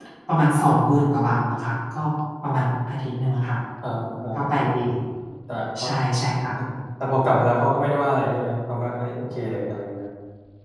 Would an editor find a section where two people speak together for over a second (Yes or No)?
No